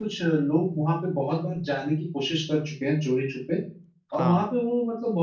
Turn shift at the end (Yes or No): No